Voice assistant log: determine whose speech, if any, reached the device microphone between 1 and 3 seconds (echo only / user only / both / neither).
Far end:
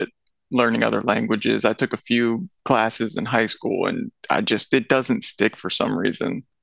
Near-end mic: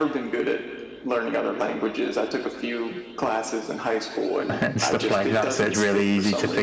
echo only